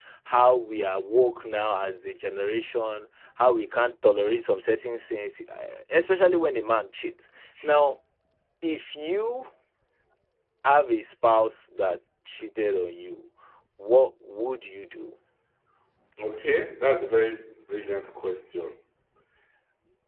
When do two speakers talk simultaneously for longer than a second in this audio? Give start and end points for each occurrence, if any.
none

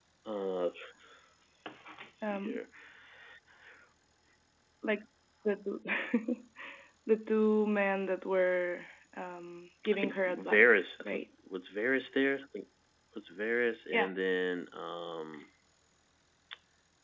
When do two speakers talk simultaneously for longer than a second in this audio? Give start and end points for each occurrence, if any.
9.9-11.2

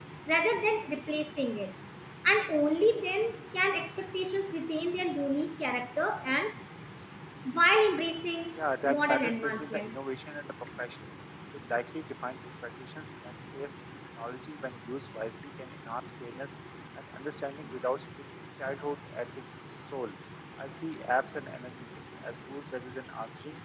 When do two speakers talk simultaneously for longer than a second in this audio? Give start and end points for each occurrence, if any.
8.6-10.0

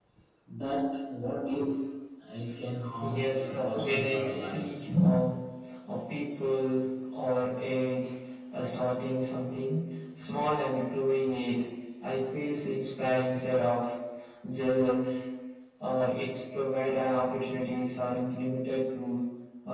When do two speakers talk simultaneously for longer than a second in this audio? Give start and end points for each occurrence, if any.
3.0-4.7

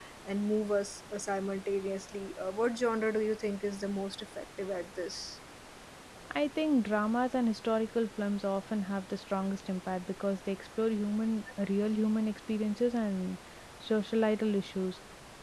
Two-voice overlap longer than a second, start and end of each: none

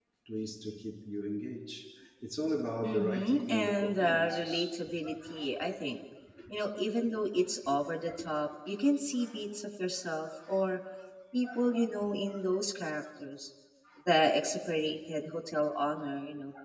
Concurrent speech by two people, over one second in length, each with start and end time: 2.8-4.7

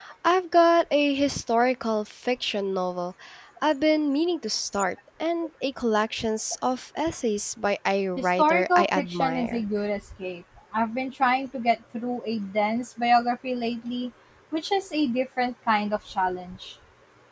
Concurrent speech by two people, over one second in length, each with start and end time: 8.2-9.6

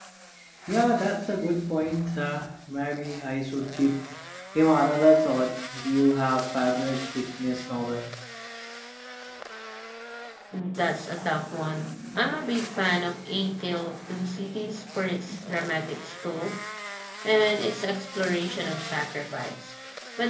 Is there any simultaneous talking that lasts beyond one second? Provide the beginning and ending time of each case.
none

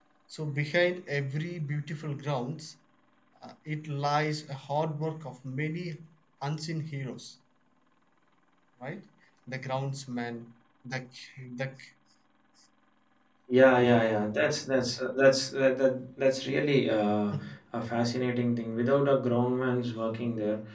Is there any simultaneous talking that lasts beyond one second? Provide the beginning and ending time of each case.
none

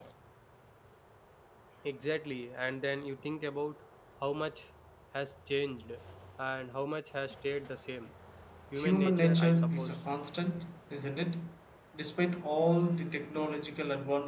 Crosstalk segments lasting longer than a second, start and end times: 8.8-10.0

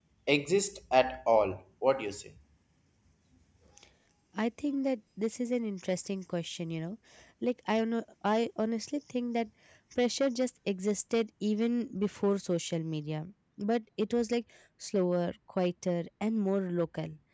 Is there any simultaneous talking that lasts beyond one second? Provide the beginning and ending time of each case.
none

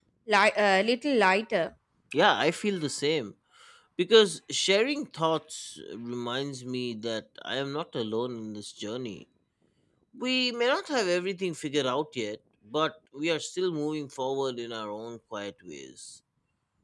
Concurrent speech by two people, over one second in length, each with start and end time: none

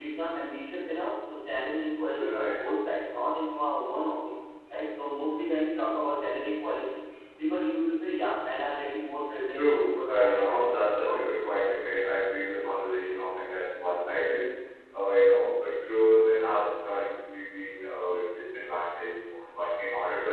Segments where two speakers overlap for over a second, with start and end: 9.5-11.3

